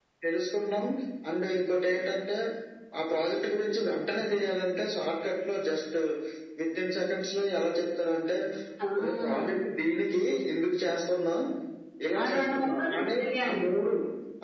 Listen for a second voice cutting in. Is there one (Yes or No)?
Yes